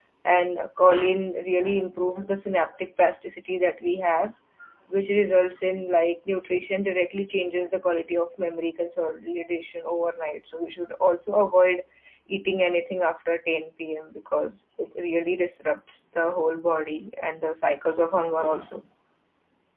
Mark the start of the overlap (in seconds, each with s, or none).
none